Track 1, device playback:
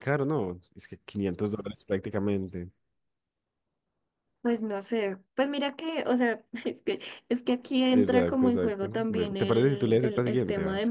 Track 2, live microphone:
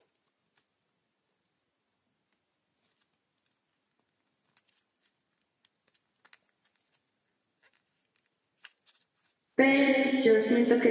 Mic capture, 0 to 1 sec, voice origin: neither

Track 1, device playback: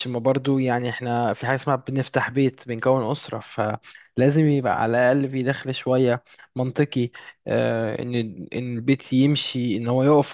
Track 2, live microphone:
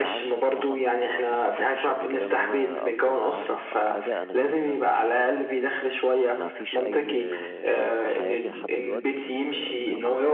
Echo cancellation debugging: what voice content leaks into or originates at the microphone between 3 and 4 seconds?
both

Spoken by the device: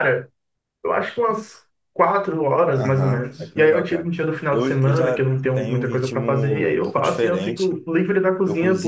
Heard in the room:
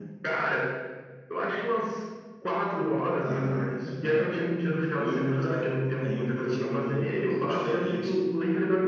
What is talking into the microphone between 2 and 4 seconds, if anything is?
echo only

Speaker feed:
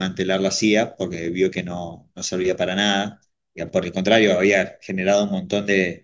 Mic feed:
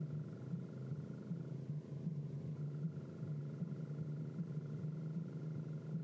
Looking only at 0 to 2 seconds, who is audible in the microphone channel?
neither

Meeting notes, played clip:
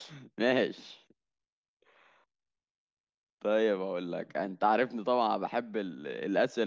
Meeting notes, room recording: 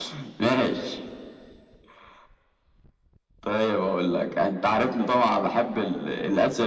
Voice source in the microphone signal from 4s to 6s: echo only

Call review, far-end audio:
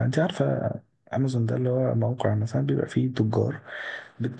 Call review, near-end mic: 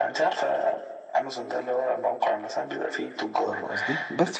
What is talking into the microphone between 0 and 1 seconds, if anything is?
echo only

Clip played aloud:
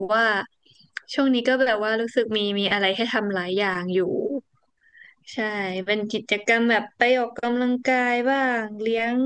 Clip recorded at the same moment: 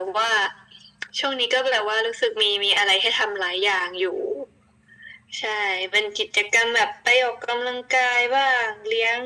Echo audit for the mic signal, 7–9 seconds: echo only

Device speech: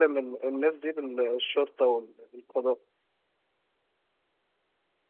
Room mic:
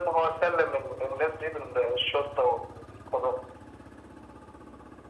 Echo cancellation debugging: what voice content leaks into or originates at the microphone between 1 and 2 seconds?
echo only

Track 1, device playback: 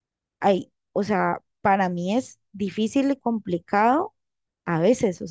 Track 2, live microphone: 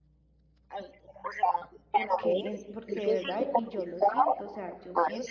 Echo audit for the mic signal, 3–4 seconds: both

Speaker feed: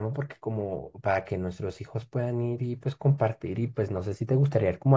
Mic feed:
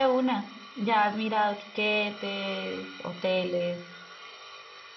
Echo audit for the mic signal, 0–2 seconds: user only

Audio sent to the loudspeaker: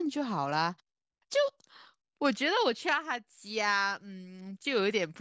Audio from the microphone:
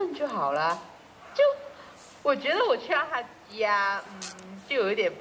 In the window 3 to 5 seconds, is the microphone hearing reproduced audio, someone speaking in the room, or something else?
echo only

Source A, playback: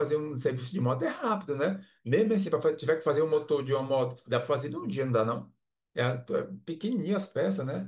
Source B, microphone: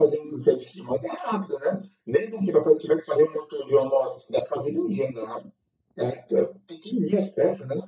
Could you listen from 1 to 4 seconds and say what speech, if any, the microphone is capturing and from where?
echo only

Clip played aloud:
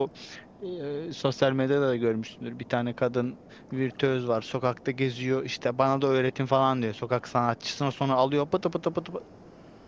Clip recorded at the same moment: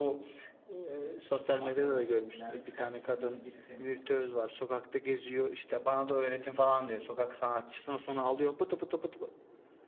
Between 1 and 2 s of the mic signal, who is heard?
both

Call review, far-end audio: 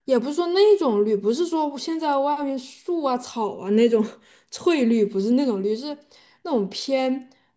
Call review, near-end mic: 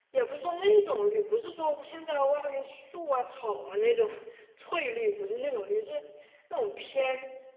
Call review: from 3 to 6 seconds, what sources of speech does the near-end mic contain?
echo only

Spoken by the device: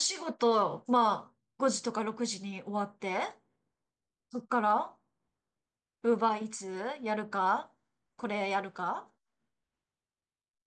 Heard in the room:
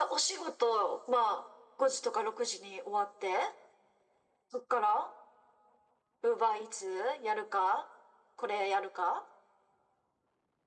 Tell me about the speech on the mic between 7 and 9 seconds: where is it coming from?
echo only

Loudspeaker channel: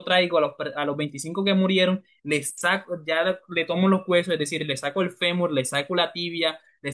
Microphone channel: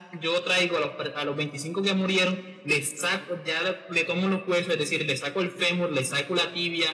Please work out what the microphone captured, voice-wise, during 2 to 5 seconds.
echo only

